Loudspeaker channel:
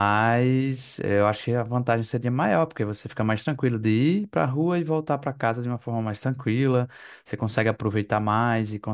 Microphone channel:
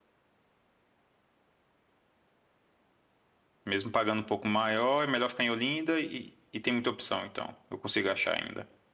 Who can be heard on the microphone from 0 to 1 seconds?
neither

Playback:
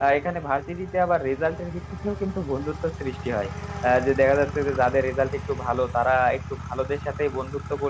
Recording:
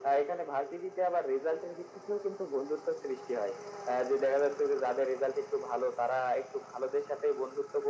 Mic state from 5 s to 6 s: echo only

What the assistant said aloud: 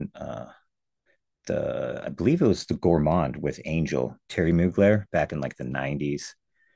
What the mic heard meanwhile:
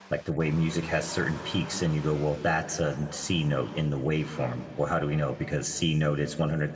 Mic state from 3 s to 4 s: user only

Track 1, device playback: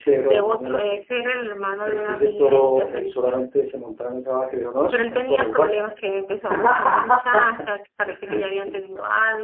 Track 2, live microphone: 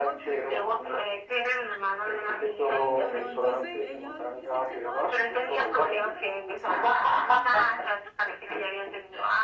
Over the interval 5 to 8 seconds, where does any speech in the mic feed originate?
both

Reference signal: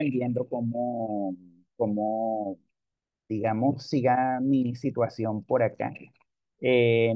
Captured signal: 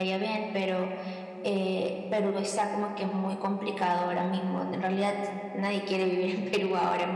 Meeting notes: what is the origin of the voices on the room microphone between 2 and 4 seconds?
user only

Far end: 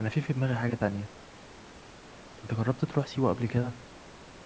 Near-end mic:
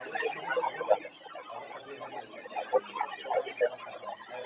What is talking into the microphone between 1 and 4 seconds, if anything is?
both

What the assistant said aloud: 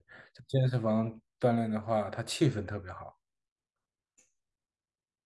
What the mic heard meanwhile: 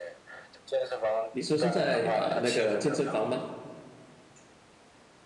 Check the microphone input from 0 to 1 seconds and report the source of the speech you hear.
echo only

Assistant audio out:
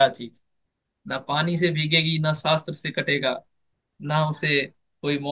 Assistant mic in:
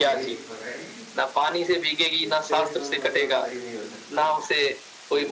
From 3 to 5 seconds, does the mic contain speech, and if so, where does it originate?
both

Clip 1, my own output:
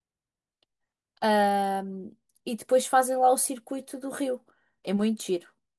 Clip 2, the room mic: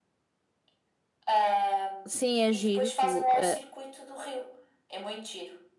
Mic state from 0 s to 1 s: neither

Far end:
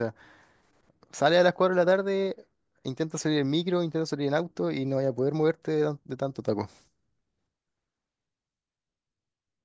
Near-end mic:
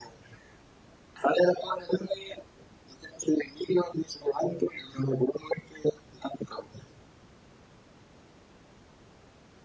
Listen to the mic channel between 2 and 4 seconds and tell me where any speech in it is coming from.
echo only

